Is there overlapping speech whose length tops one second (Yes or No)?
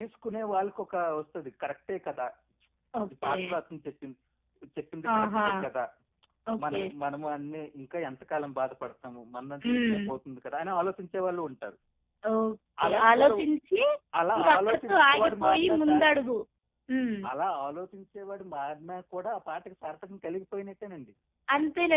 Yes